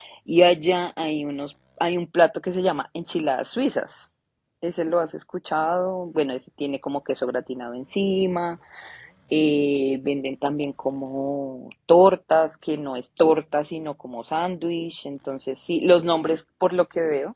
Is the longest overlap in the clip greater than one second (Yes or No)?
No